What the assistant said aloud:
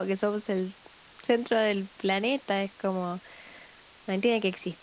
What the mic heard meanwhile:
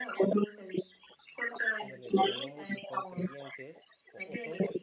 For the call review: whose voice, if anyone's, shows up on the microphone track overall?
both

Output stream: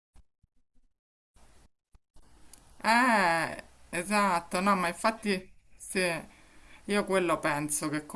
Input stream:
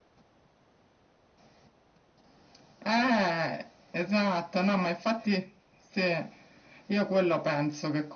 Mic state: echo only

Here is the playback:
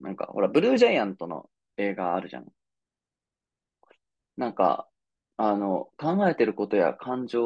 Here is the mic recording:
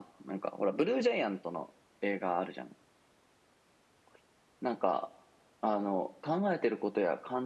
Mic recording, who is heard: echo only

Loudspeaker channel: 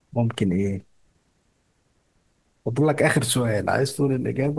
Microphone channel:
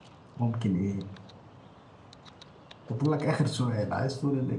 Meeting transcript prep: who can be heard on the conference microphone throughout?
echo only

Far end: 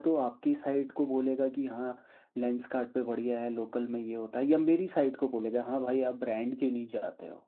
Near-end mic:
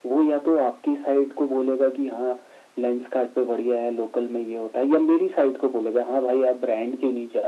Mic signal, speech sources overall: echo only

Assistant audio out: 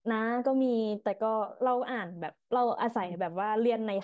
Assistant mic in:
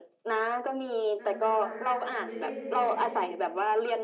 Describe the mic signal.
both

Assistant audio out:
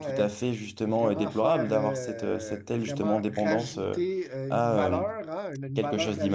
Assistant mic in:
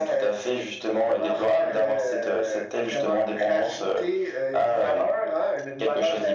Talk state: echo only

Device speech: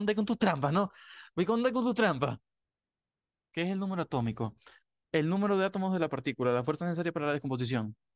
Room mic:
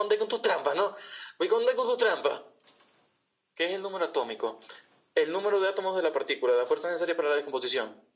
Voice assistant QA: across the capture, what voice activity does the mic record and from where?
echo only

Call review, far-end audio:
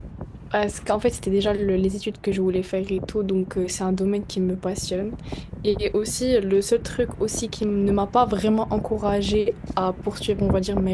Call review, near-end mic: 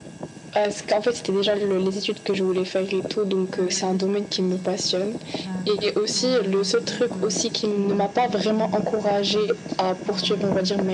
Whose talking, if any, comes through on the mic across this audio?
both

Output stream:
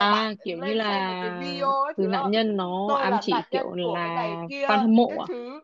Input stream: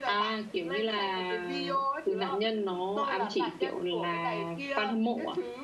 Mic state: echo only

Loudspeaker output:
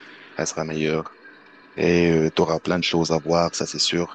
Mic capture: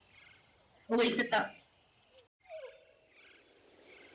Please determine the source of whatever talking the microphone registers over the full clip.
user only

